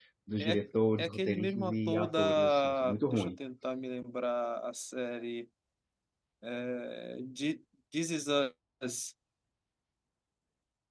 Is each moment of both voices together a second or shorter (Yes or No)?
No